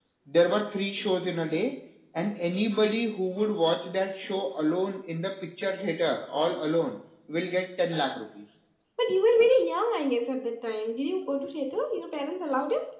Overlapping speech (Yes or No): No